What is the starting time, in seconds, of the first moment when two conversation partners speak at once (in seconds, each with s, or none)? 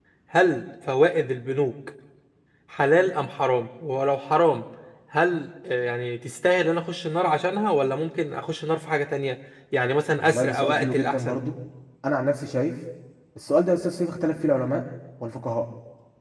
10.2 s